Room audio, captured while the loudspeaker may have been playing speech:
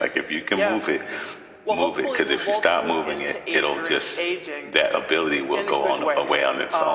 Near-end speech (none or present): none